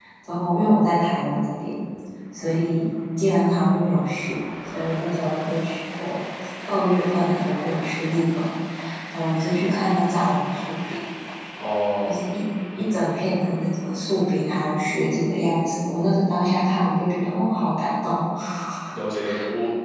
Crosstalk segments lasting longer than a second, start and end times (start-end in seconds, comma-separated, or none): none